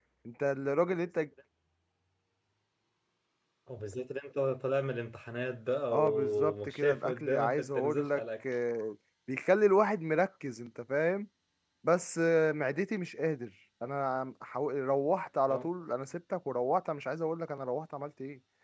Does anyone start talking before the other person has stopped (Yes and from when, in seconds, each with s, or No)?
Yes, from 5.9 s